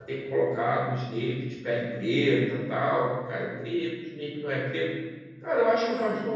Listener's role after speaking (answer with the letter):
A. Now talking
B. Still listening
B